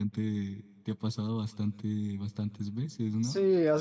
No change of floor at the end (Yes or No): No